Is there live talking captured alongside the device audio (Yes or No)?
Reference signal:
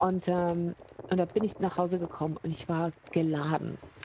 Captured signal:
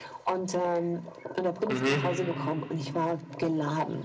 Yes